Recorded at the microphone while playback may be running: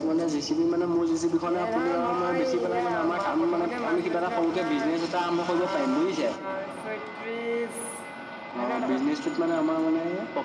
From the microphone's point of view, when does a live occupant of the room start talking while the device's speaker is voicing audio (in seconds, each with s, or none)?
none